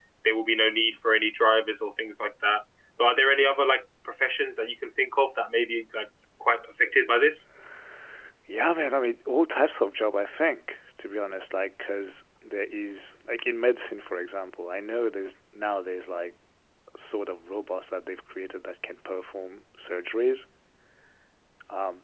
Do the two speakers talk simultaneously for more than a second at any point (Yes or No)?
No